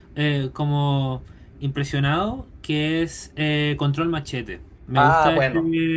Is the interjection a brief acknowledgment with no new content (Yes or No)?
Yes